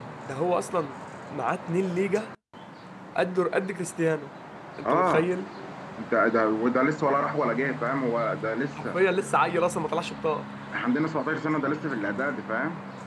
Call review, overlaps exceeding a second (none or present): none